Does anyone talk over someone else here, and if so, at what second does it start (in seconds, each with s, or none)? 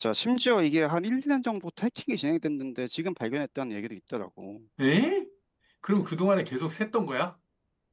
none